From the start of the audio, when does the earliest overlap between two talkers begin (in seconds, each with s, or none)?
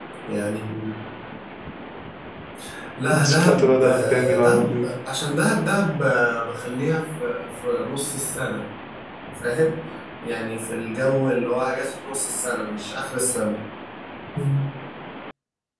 3.2 s